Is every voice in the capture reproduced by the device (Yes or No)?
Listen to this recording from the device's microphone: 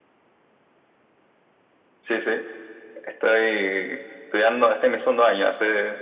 Yes